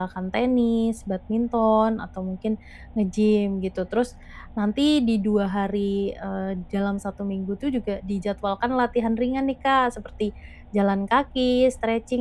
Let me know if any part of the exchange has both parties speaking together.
No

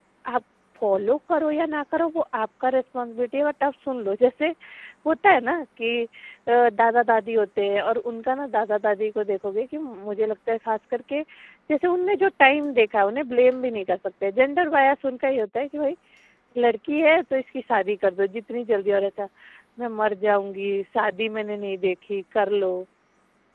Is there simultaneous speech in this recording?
No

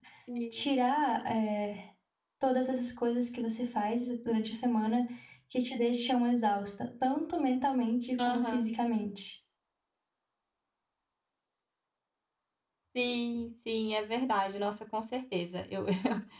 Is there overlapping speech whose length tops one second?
No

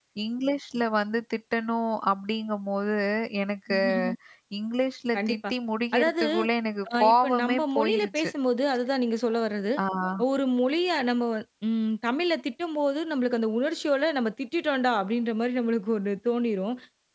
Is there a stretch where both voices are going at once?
Yes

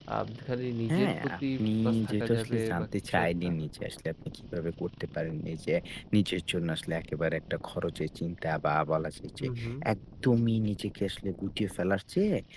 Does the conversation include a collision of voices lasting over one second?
Yes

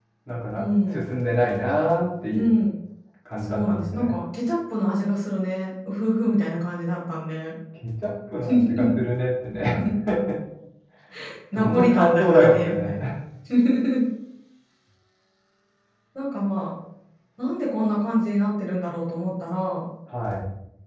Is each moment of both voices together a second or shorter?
No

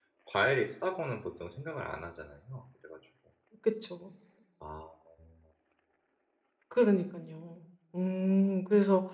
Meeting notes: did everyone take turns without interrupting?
Yes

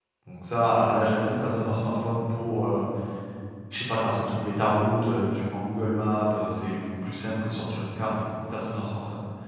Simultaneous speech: No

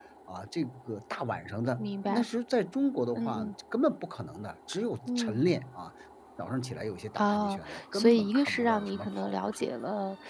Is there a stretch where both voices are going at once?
Yes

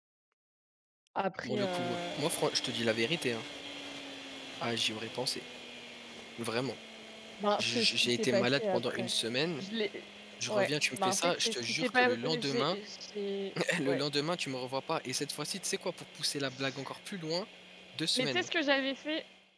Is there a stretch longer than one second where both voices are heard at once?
Yes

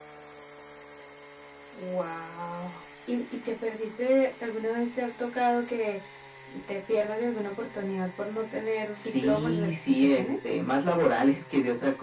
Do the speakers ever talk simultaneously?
Yes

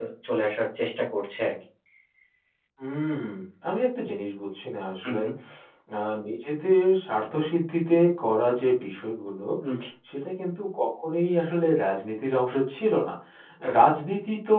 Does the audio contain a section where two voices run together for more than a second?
No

